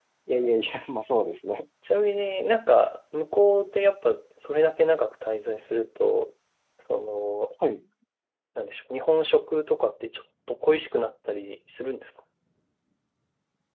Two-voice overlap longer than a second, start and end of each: none

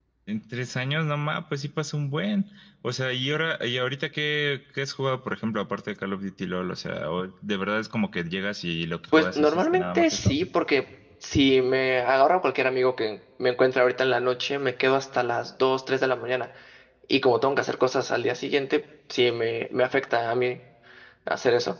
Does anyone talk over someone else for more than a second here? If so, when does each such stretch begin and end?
9.1-10.3

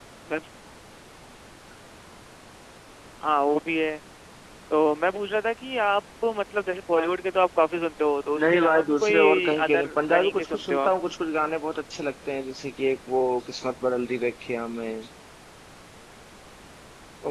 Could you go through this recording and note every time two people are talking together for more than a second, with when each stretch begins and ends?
8.5-10.9

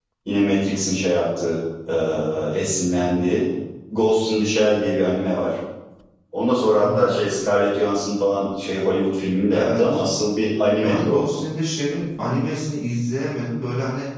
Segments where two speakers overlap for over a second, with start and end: none

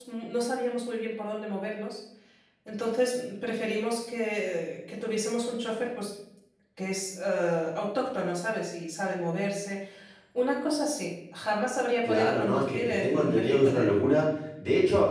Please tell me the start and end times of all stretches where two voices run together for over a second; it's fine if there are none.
12.0-13.9

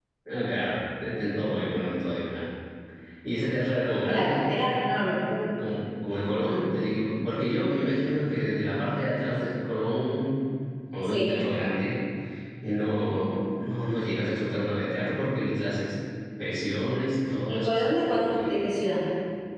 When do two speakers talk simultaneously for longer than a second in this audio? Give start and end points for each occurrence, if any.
17.5-18.8

